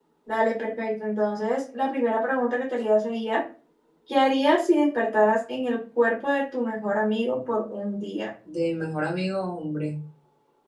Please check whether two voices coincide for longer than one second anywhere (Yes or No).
No